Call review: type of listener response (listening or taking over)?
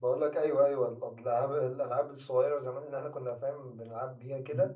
taking over